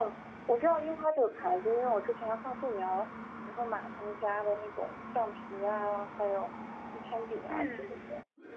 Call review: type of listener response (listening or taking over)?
taking over